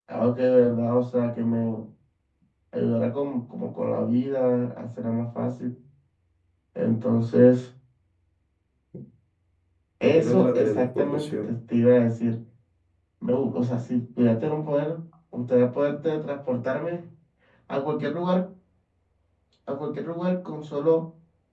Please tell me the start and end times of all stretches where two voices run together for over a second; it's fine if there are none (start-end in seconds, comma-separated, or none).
10.0-11.5